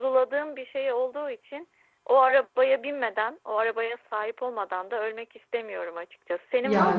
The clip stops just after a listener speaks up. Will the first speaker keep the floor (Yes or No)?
Yes